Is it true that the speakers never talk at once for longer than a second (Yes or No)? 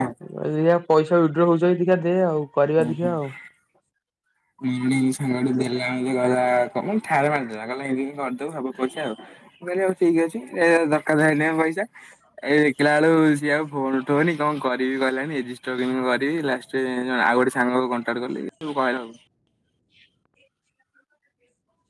Yes